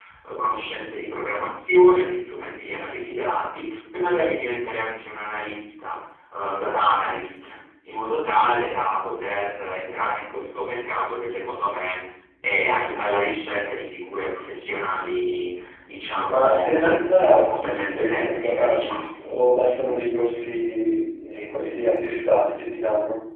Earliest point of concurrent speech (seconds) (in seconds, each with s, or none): 16.2 s